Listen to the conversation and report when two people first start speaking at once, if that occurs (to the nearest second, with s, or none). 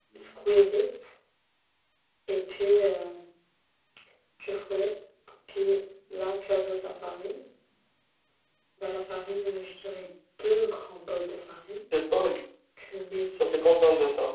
none